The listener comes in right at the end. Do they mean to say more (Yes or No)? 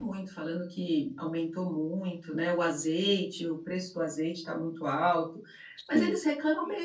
No